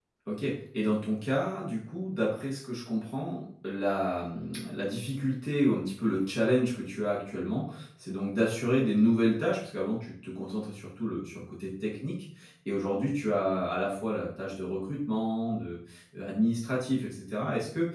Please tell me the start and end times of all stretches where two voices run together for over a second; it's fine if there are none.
none

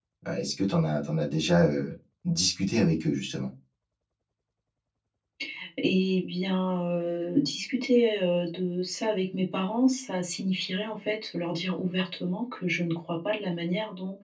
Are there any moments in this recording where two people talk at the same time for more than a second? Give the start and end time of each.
none

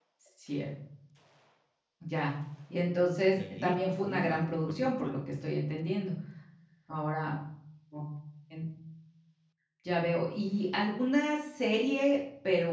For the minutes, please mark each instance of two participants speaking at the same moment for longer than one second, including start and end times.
3.4-5.5

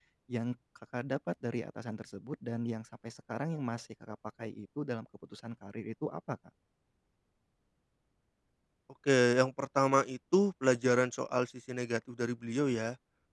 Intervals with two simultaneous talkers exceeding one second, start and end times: none

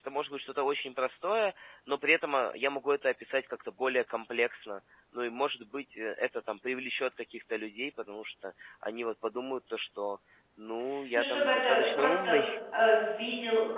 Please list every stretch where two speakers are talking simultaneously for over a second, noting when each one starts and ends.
11.2-12.4

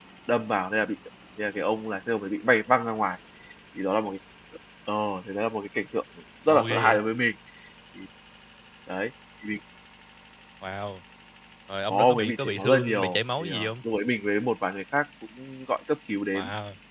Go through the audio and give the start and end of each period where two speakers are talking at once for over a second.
11.9-13.7

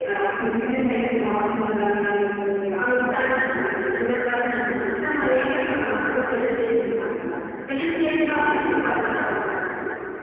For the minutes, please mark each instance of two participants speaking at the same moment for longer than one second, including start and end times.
2.8-4.1

